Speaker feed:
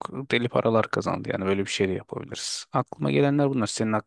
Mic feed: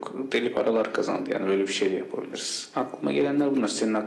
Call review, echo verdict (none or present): present